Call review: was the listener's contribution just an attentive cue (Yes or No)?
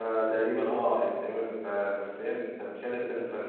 No